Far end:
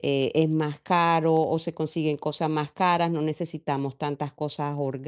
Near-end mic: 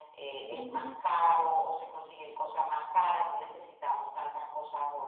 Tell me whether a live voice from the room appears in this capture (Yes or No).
Yes